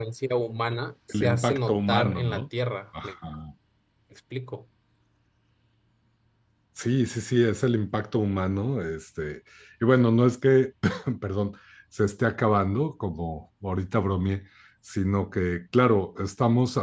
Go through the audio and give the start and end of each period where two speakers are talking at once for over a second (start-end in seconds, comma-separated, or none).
1.1-2.4